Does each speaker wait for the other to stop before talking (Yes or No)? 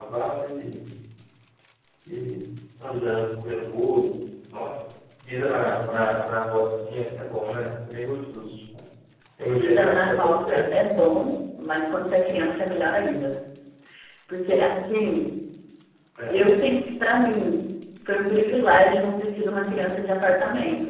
No